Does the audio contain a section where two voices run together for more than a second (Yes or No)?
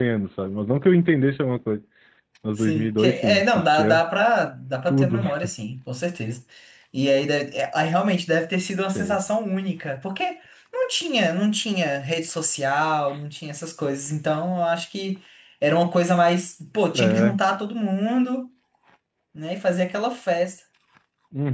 Yes